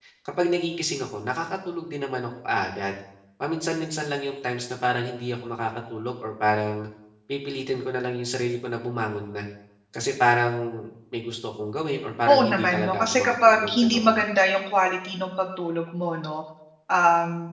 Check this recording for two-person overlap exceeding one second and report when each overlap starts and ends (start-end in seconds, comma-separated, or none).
12.3-14.2